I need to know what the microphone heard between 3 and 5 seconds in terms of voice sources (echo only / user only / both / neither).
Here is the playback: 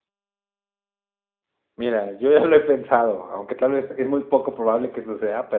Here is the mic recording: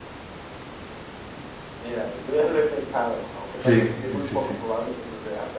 both